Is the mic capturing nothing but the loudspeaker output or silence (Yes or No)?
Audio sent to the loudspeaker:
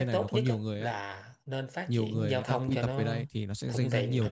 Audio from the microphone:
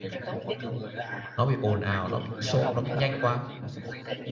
No